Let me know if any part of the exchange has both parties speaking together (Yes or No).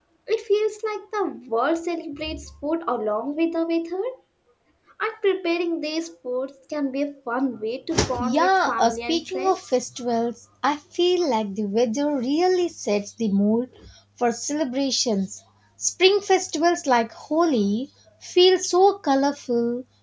Yes